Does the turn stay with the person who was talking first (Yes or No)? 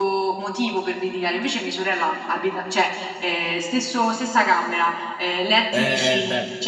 No